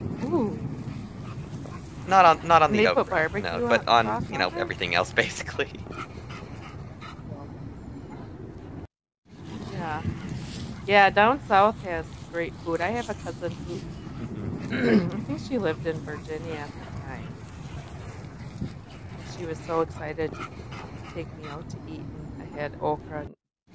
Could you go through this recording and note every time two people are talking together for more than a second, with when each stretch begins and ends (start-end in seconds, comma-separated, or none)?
2.7-4.7